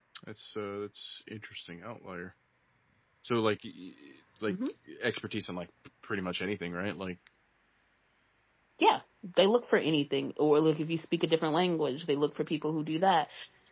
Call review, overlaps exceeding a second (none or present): none